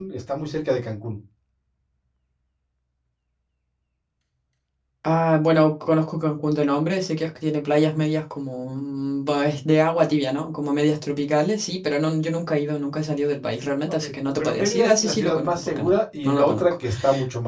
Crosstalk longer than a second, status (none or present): present